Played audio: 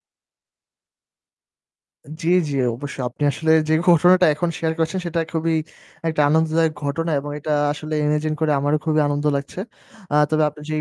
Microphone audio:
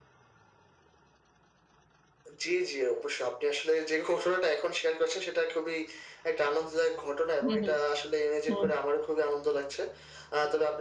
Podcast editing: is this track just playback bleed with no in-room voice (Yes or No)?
No